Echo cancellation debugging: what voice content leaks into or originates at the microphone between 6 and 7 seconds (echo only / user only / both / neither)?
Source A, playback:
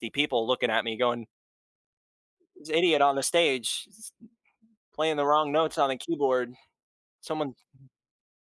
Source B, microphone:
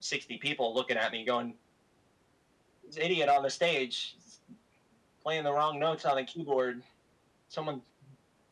echo only